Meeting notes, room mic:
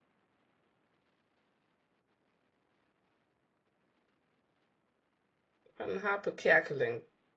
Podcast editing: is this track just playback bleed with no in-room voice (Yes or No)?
No